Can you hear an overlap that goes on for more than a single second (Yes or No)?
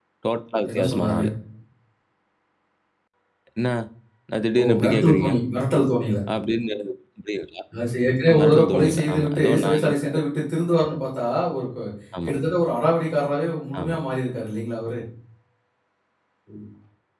Yes